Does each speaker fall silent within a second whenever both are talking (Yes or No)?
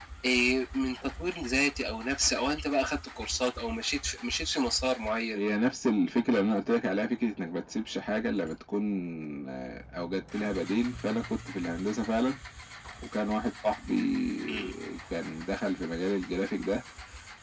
Yes